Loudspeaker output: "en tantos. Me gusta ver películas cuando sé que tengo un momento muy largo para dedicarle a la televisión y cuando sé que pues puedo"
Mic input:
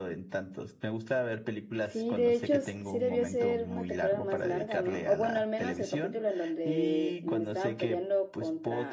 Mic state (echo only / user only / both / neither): both